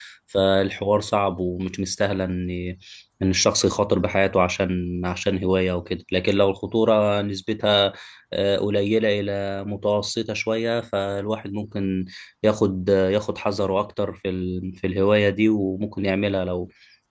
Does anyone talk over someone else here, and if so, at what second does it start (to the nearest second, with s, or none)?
none